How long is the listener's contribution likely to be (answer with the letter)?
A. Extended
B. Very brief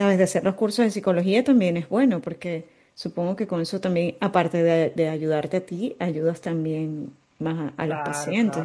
A